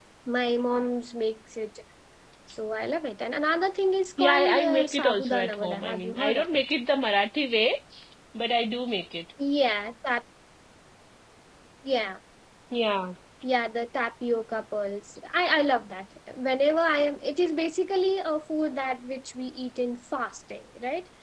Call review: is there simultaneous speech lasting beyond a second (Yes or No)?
Yes